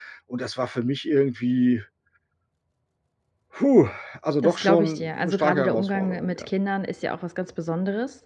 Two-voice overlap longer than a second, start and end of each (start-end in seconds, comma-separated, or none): 4.4-6.5